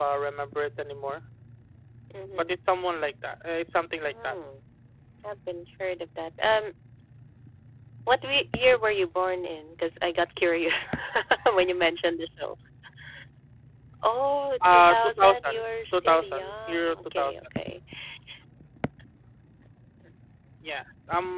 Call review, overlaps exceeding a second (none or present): present